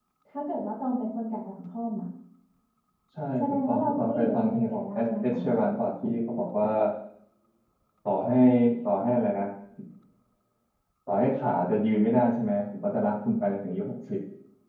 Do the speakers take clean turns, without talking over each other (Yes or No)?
No